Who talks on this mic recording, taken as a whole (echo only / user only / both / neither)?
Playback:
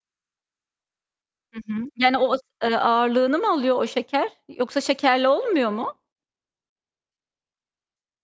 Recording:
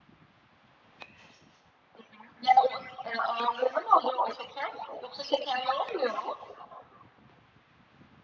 echo only